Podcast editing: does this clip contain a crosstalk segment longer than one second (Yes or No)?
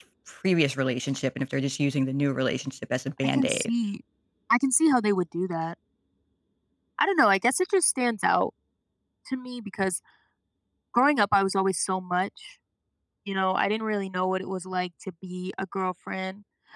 No